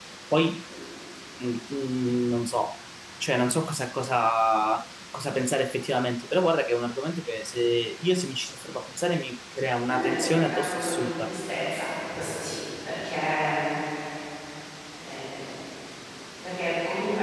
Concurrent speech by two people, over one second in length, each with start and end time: 9.9-11.3

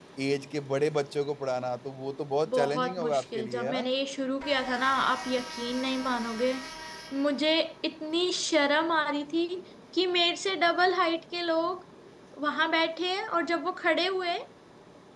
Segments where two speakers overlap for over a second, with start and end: 2.5-3.9

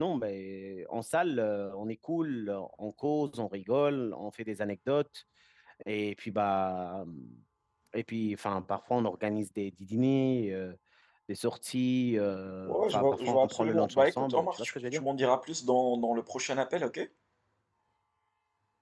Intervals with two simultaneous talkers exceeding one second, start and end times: 12.7-15.0

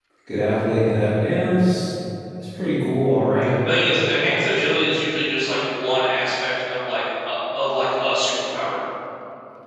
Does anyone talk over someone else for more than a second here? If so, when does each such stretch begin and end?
none

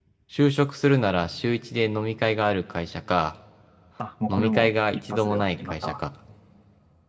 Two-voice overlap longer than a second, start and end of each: 4.3-6.0

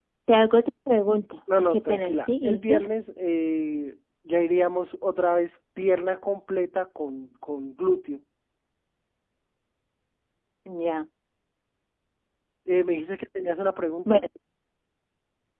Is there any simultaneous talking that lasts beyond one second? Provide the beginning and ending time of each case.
1.6-2.8

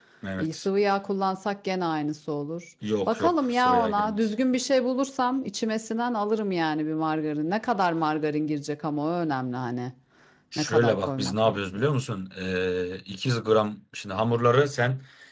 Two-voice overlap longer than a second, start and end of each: 3.1-4.3, 10.6-11.8

